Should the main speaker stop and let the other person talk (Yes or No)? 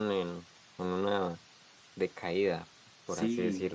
Yes